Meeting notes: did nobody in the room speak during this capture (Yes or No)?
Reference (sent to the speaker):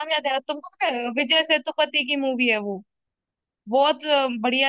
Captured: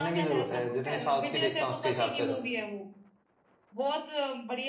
No